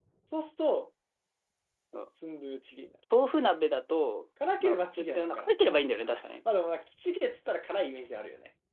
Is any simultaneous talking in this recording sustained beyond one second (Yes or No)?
Yes